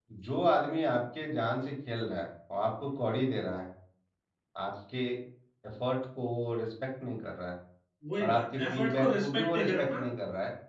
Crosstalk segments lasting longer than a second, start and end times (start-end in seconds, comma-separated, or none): 8.2-10.0